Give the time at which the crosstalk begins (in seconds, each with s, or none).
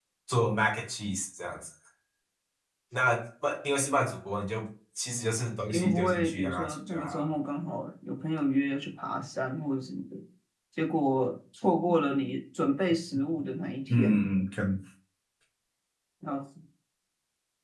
5.7 s